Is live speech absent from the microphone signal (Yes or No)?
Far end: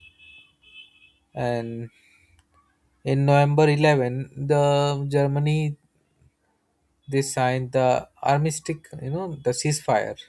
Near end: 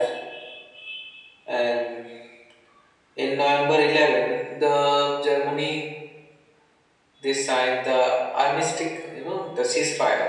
Yes